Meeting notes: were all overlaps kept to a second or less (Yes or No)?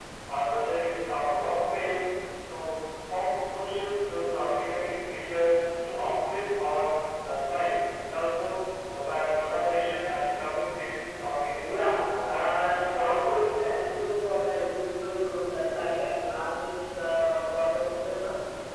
No